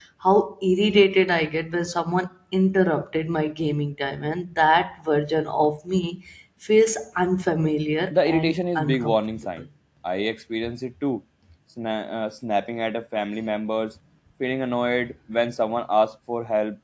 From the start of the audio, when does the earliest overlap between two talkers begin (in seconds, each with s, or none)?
8.1 s